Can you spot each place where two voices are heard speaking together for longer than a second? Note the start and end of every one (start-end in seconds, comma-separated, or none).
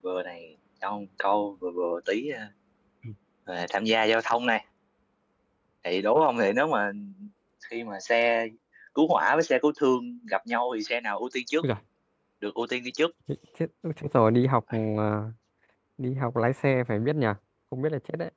none